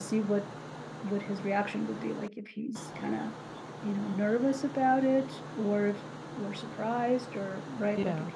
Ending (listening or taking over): listening